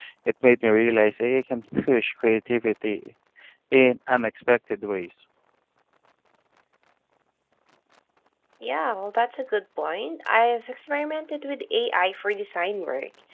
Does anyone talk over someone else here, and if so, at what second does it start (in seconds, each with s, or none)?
none